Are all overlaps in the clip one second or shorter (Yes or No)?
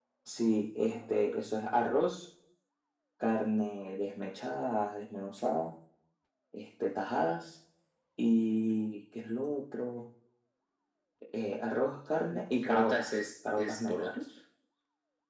No